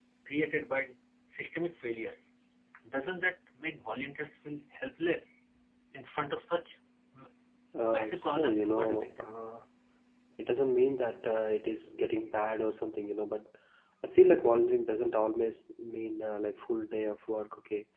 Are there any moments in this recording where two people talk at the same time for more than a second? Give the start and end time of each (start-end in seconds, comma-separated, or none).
7.9-9.1